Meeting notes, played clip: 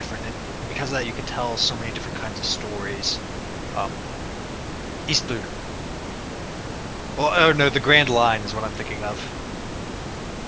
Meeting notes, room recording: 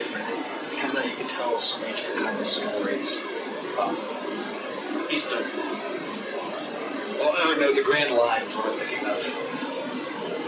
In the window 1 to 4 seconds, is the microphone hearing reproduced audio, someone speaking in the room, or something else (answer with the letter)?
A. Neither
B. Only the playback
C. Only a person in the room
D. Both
B